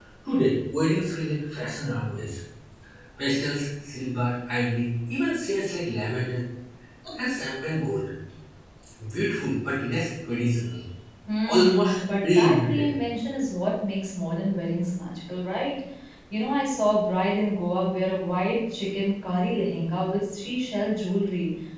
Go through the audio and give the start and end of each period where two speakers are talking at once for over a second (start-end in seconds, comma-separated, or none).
11.5-12.9